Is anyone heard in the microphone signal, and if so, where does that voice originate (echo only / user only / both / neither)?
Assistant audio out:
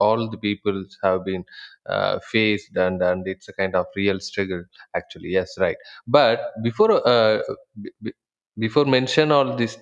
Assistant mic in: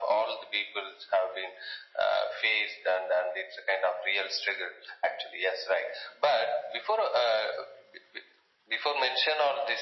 echo only